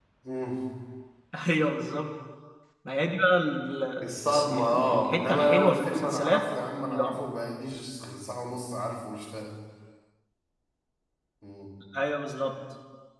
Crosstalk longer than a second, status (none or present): present